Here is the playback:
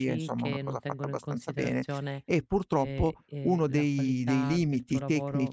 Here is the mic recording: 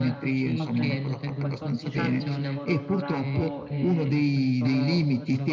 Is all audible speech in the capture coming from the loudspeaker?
No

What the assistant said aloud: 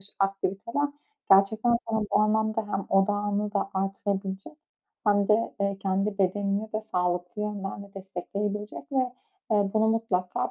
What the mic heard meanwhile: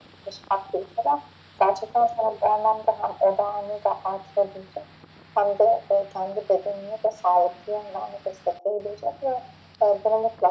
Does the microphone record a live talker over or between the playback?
No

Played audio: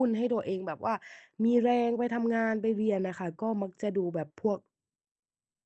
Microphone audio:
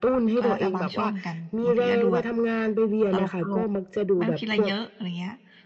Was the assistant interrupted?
Yes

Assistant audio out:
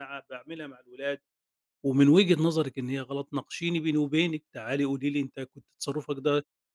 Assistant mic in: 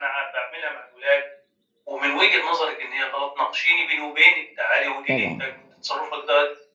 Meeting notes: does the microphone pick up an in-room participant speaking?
Yes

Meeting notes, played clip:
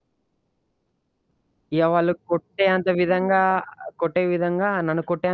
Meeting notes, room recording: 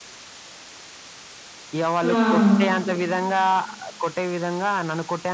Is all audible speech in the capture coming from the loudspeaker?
No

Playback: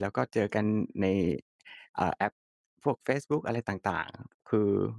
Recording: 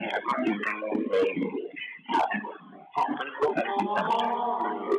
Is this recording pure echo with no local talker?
No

